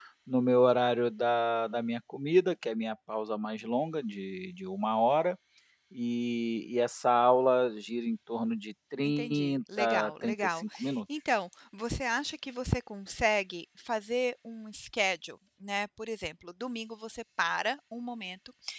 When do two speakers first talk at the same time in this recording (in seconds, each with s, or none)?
9.0 s